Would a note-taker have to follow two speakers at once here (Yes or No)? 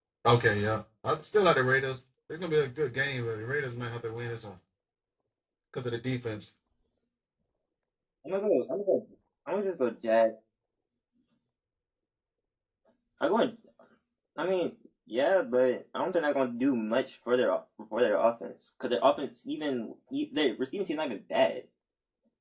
No